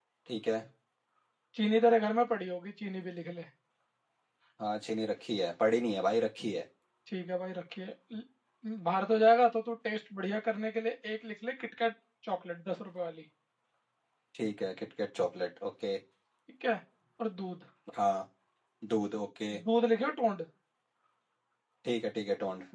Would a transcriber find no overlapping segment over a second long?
Yes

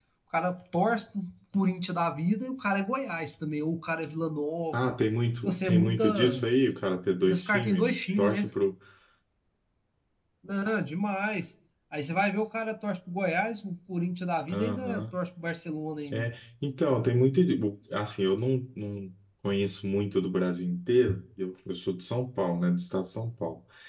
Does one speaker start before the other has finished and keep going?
Yes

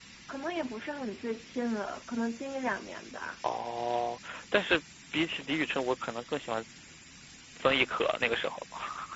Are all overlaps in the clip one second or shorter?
Yes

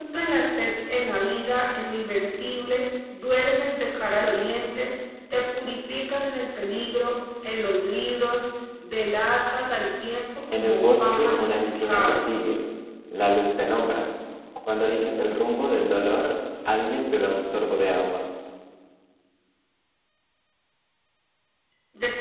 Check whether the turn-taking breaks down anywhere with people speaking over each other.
Yes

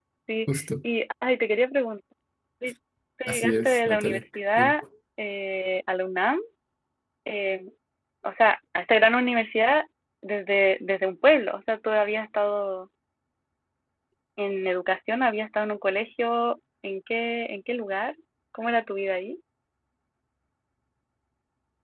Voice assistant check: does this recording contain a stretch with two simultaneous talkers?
Yes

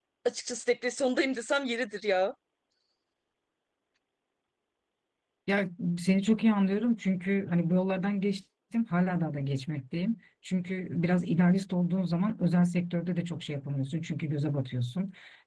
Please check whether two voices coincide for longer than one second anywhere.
No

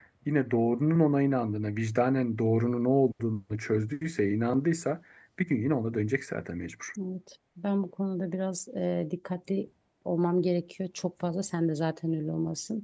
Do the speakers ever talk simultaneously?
No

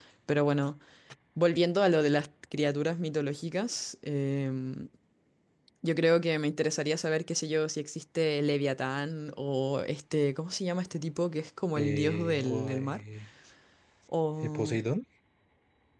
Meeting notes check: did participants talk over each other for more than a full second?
Yes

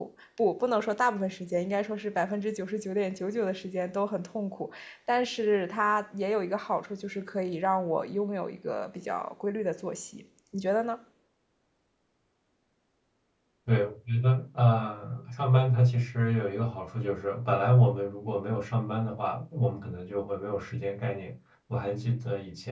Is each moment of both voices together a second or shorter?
Yes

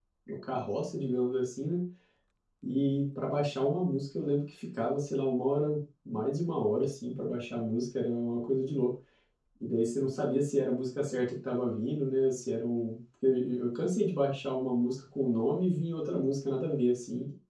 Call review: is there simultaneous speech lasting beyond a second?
No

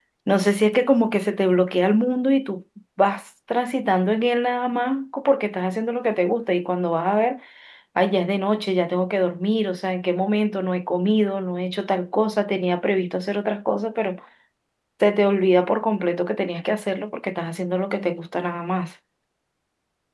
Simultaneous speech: No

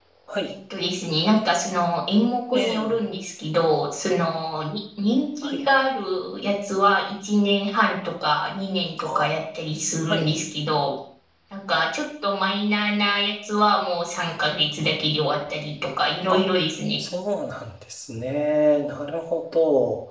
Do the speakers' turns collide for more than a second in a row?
No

